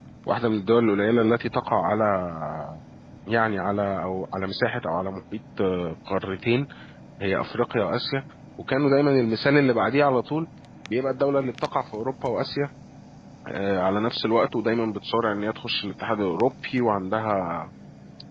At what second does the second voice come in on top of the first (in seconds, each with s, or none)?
none